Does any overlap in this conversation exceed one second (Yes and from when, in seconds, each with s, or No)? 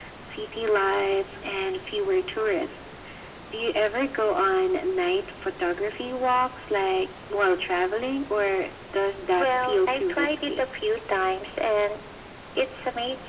Yes, from 9.3 s